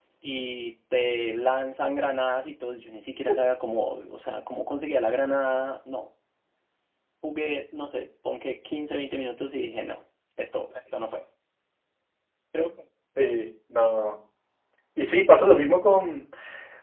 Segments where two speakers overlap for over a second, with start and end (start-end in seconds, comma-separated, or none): none